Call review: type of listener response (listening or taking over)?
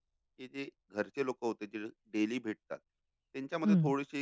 listening